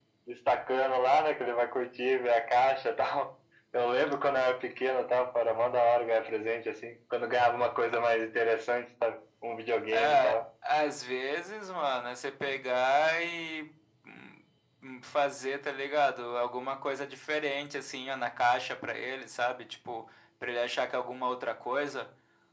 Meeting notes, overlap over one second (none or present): none